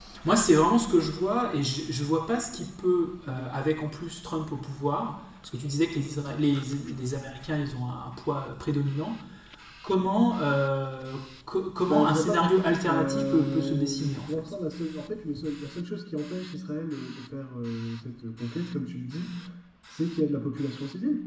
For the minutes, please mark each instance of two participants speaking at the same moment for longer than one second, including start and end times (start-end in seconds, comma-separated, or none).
11.9-14.5